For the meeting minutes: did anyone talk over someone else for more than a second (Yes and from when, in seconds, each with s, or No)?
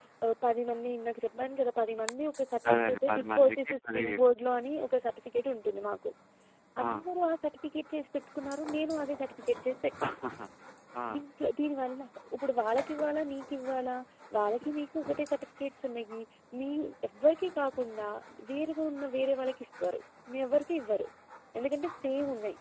Yes, from 2.7 s